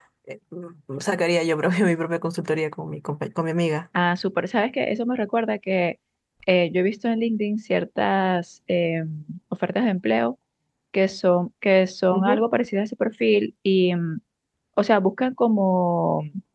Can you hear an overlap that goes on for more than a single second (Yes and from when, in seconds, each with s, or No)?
No